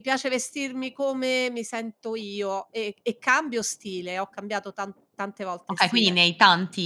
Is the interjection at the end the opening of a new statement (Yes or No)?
Yes